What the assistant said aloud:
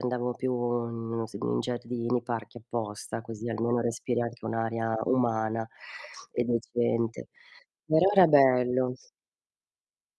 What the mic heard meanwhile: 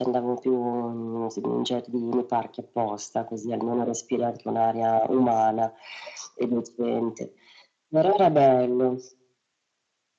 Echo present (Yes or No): Yes